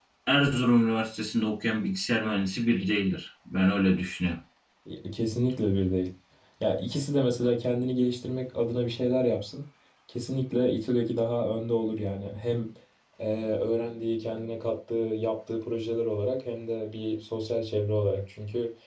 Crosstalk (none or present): none